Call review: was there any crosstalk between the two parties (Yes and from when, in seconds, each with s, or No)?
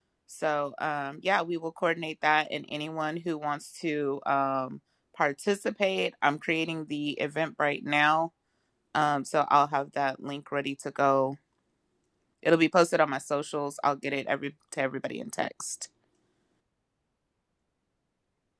No